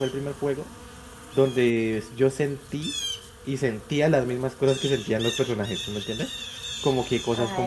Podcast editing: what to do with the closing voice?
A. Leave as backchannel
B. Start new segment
A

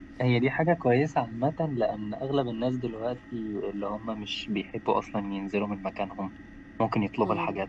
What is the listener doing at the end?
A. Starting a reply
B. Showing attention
B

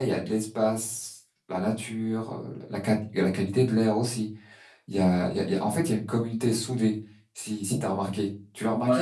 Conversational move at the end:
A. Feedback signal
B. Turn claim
B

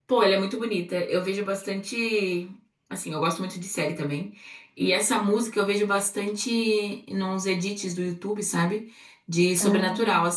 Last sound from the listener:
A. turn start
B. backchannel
B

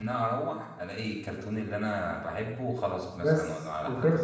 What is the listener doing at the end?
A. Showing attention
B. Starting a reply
B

